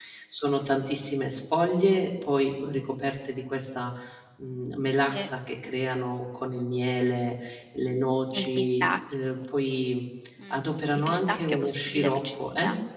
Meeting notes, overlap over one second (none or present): present